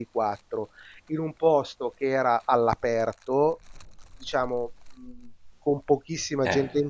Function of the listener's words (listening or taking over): listening